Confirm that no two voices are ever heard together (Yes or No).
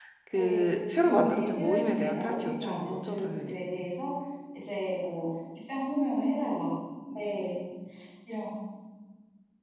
No